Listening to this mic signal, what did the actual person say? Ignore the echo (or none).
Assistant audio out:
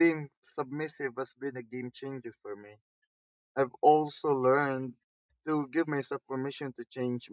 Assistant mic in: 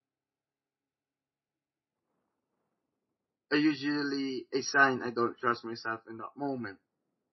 I usually a sign I don't trust myself in that moment.